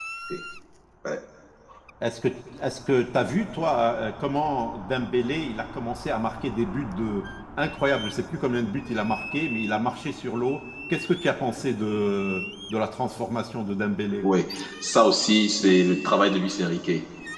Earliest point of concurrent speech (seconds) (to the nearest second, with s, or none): none